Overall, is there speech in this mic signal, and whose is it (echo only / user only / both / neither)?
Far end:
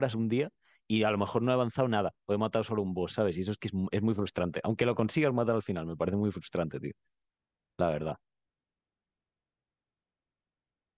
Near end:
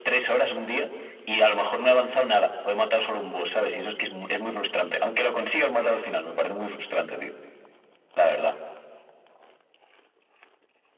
echo only